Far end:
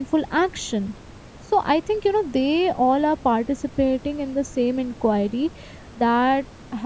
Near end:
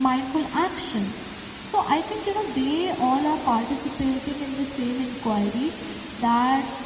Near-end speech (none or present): none